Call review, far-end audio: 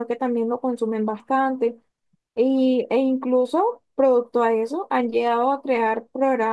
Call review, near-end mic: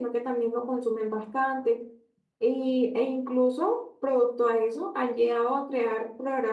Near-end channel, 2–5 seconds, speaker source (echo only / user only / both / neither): echo only